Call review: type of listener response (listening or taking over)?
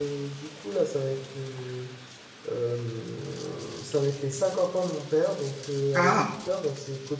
listening